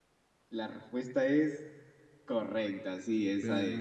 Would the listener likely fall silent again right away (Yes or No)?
No